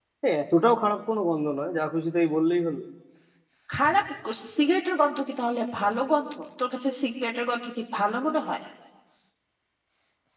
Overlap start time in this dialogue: none

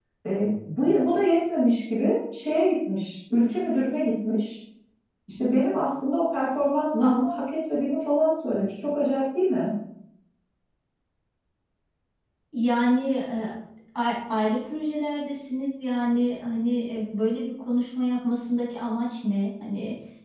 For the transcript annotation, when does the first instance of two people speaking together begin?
none

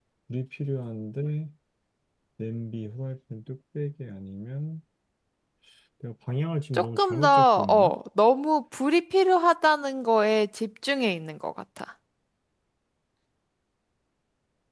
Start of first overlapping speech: 6.7 s

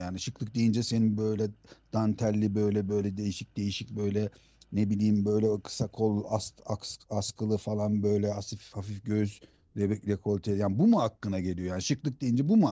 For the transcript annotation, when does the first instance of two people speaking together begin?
none

